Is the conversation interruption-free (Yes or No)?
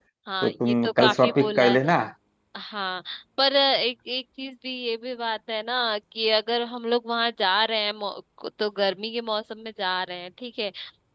No